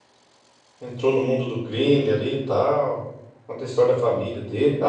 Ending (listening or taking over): listening